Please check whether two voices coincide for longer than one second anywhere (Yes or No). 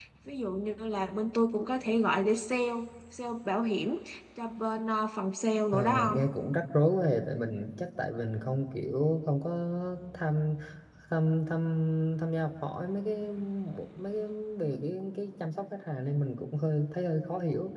No